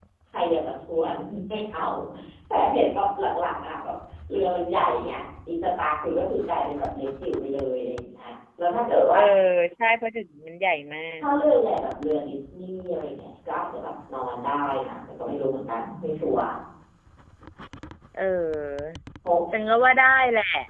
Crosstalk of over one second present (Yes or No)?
No